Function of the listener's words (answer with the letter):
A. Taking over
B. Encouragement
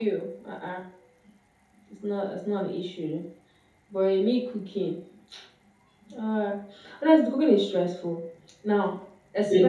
A